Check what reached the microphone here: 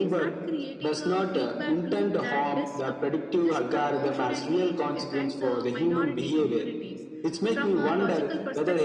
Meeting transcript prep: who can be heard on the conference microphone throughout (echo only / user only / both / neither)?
both